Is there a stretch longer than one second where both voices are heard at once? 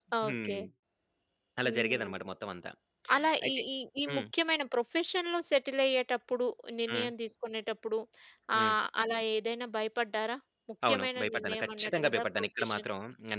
Yes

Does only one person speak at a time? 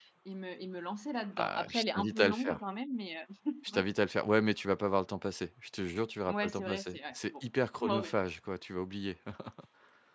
No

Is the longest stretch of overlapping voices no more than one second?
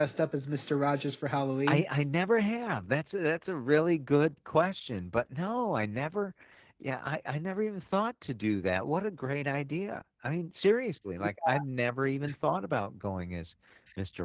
Yes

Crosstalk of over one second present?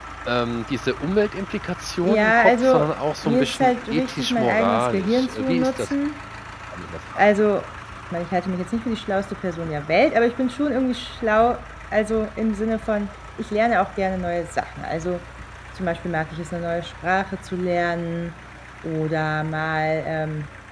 Yes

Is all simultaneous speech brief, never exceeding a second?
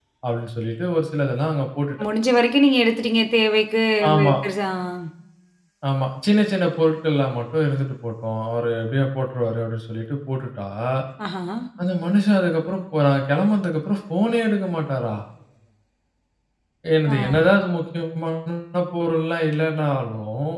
Yes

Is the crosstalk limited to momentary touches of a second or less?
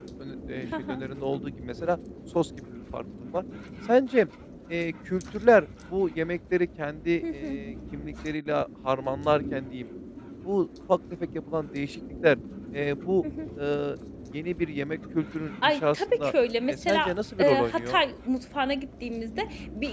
No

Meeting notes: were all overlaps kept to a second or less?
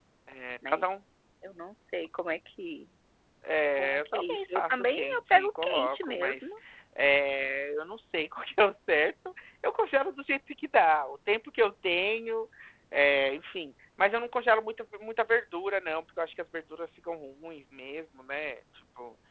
No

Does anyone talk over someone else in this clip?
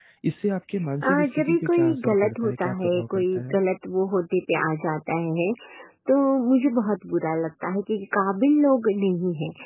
Yes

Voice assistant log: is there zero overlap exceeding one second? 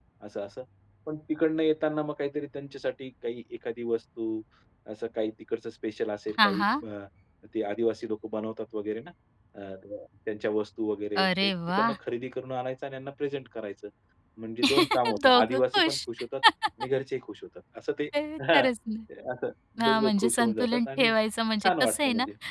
No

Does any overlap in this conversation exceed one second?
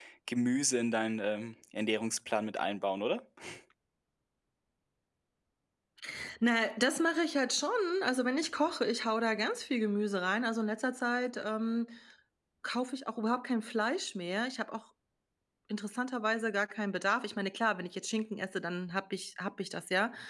No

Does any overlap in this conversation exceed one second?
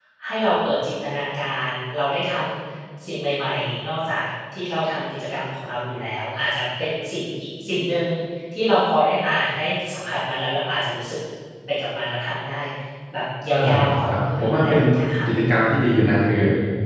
Yes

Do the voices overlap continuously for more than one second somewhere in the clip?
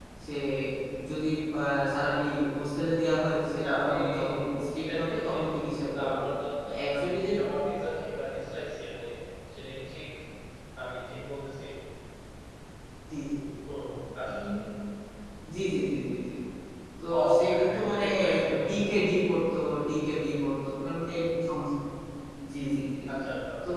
Yes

